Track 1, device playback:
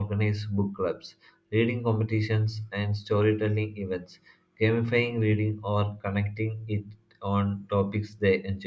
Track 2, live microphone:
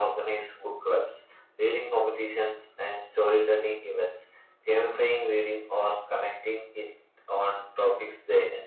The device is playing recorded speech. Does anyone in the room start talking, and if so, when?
none

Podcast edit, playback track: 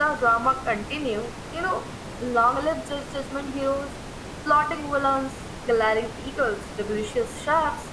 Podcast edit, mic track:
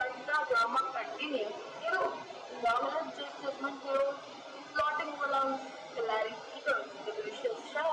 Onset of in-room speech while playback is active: none

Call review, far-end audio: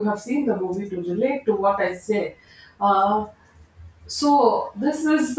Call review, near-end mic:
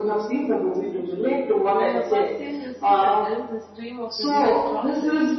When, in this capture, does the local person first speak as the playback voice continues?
1.7 s

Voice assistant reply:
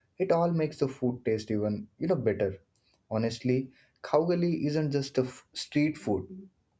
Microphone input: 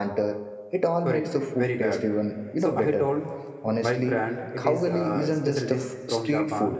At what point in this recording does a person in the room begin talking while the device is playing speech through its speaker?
1.1 s

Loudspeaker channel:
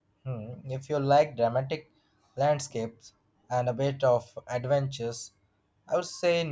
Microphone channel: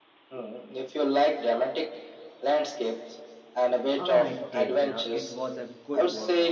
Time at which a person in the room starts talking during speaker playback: 4.0 s

